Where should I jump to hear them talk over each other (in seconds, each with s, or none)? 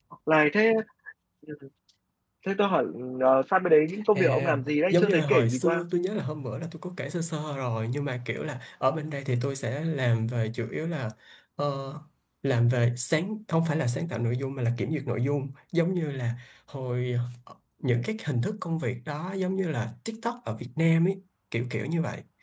4.2 s